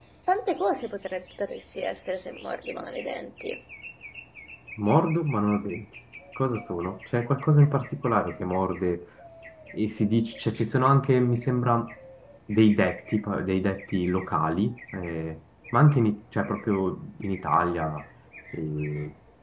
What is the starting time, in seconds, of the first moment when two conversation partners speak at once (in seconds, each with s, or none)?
none